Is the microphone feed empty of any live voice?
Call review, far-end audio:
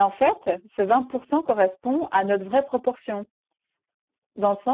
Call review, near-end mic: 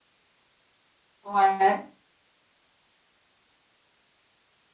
No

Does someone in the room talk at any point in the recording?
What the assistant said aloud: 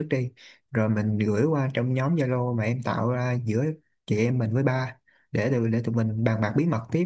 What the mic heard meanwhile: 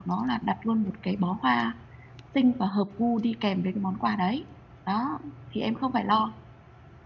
Yes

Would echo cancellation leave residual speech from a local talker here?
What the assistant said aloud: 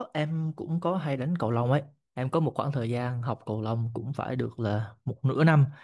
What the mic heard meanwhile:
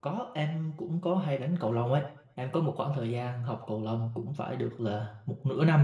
No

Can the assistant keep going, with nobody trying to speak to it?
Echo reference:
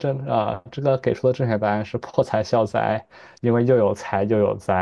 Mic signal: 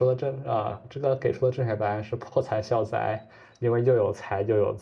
Yes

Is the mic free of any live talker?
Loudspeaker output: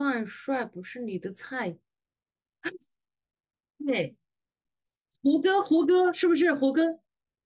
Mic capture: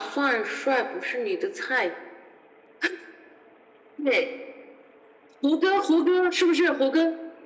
Yes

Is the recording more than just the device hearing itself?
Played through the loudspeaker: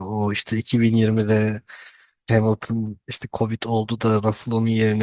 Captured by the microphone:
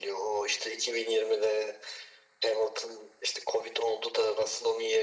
No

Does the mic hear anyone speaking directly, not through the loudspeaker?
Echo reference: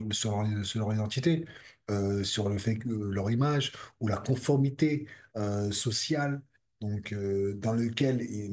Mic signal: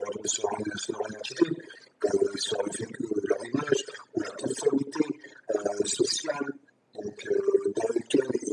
No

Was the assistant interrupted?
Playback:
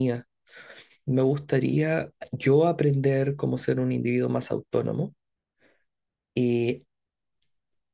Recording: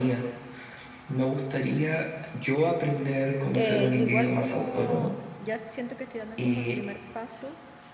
Yes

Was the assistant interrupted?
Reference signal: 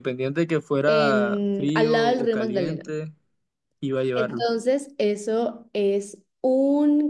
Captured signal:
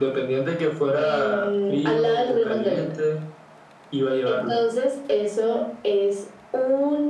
No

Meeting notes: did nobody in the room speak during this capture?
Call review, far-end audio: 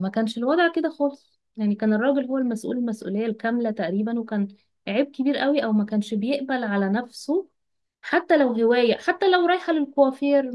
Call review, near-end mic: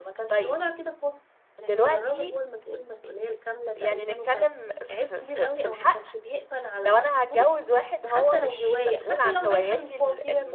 No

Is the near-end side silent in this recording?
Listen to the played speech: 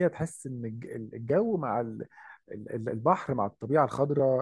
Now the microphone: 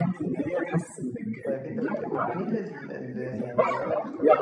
No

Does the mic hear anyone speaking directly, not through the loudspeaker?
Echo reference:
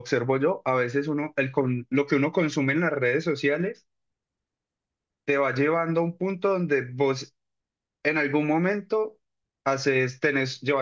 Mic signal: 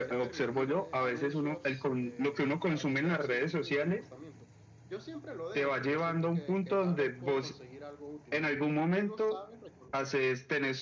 Yes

